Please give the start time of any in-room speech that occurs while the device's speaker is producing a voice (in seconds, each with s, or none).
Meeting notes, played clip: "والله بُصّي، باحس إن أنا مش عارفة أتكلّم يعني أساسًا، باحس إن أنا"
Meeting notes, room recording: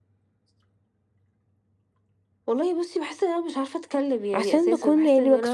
4.3 s